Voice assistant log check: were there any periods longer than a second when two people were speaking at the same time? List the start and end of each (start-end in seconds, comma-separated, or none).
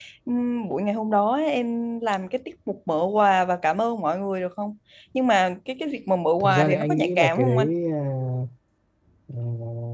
6.4-7.7